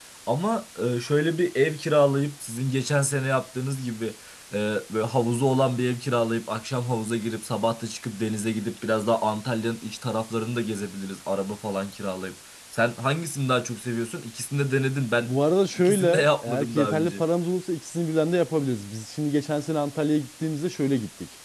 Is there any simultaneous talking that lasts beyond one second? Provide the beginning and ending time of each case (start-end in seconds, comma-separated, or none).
15.8-17.2